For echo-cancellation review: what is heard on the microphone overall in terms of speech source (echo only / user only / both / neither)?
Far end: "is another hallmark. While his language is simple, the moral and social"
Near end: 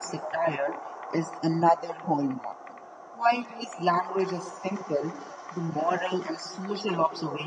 echo only